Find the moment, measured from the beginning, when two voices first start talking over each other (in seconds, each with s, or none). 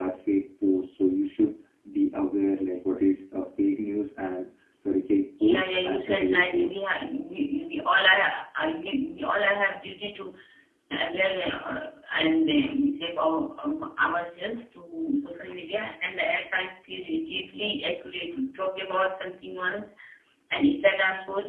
5.4 s